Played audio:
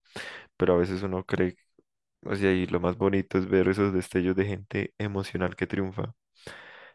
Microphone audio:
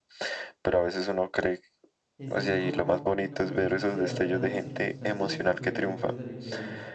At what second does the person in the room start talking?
2.2 s

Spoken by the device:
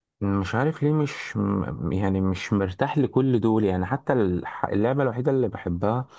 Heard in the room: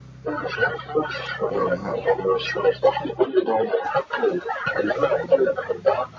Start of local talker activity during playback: 1.5 s

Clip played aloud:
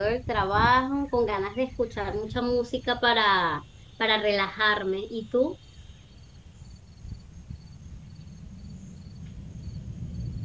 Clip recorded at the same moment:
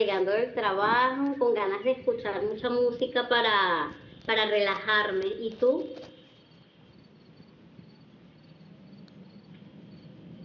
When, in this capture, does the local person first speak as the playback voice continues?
none

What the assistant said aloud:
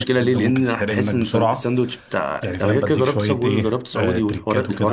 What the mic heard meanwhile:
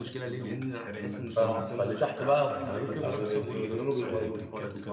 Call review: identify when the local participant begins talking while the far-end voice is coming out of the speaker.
1.3 s

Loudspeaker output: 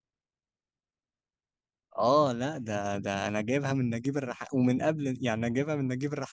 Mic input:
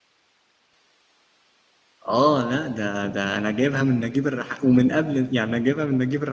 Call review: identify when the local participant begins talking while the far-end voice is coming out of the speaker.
none

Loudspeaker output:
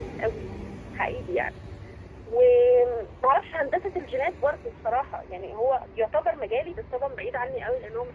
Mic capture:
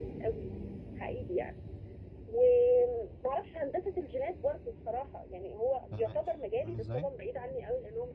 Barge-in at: 5.9 s

